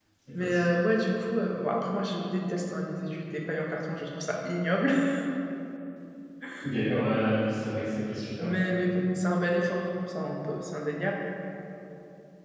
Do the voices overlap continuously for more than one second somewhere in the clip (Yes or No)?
No